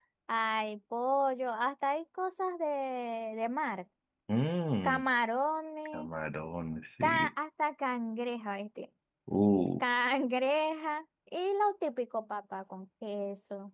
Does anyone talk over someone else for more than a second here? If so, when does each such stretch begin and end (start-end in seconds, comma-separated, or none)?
none